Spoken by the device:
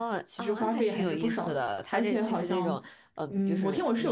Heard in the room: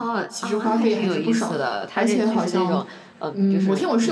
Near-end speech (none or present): none